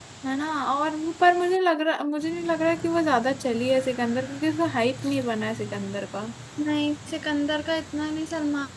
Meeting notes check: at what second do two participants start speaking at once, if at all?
none

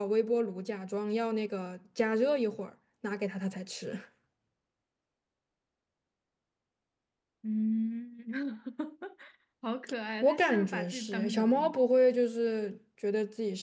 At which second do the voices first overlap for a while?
10 s

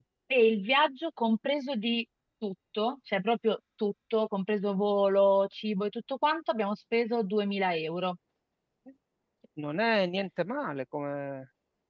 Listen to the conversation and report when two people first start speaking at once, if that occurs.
none

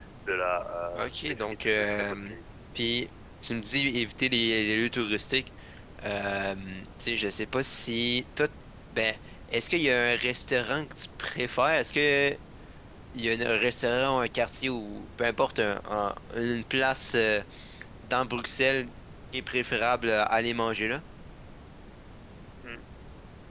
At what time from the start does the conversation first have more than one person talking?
1 s

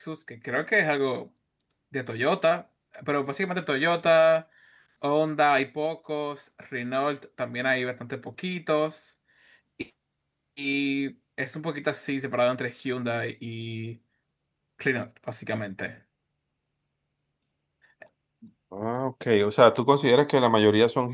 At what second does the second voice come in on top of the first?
none

